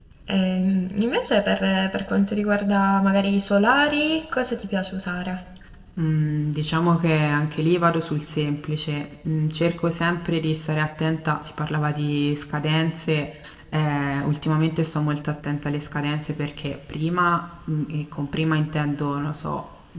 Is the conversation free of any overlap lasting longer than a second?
Yes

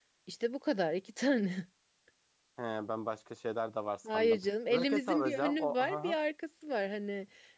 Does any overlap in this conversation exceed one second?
Yes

